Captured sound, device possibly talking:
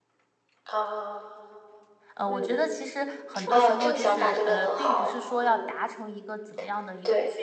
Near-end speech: present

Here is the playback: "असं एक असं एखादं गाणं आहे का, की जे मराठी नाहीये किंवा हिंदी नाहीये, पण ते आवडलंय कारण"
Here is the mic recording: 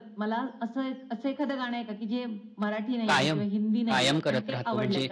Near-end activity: present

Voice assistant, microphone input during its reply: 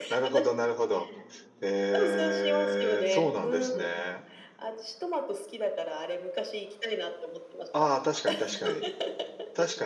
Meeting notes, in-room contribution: present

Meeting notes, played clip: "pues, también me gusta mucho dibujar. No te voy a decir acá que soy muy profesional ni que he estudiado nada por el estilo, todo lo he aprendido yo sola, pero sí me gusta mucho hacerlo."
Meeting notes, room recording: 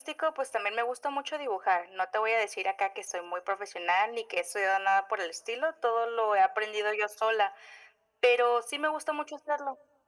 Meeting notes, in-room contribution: none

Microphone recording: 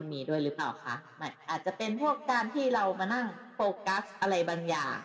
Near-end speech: none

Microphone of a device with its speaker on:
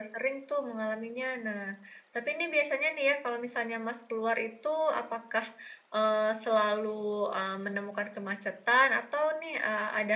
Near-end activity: none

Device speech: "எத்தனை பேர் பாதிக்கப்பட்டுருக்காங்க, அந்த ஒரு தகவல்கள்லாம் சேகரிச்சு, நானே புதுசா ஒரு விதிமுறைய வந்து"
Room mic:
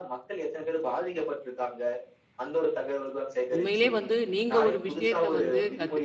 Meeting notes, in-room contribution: present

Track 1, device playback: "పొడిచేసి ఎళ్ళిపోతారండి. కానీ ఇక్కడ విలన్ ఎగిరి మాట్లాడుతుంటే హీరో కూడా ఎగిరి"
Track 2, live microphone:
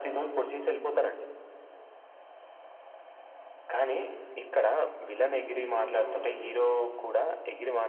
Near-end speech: none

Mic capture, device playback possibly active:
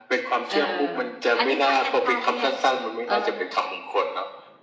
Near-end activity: present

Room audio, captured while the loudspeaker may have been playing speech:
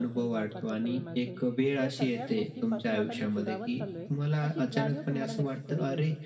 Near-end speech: present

